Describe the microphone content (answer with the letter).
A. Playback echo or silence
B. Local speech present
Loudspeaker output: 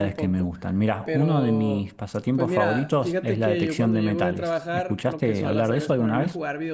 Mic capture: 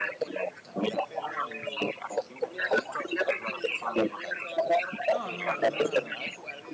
B